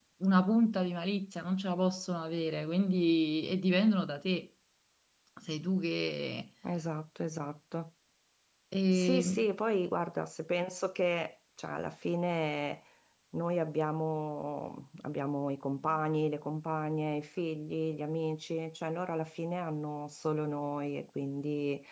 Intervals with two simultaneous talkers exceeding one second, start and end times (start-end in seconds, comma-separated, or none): none